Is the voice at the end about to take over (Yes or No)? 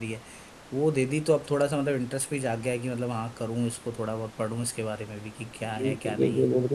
Yes